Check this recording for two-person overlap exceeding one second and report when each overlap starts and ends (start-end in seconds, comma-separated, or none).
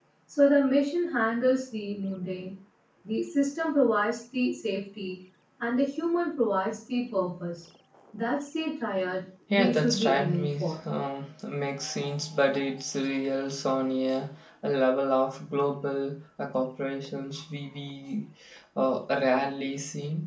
9.5-10.8